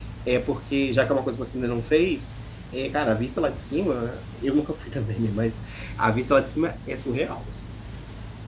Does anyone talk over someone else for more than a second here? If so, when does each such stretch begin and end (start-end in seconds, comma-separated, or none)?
none